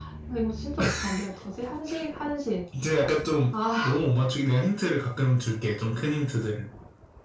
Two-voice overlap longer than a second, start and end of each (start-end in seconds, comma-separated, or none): none